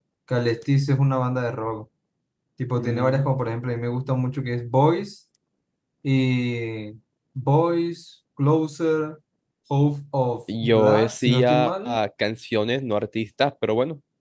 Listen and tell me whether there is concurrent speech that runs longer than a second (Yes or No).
Yes